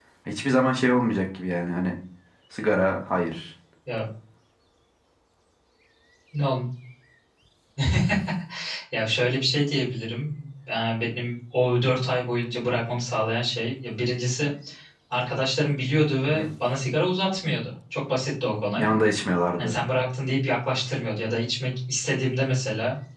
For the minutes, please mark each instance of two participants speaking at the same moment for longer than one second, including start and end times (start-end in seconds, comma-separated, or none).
none